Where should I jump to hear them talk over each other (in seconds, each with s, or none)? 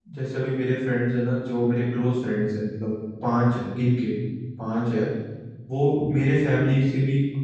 none